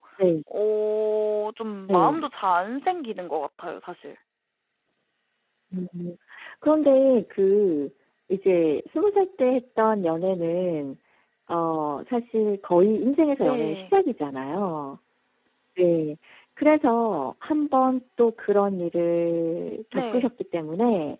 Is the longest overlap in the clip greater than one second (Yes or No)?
No